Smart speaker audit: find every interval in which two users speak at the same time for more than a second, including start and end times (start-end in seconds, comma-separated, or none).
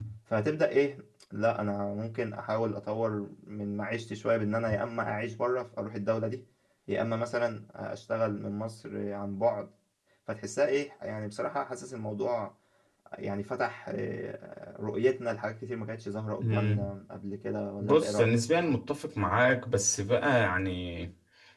none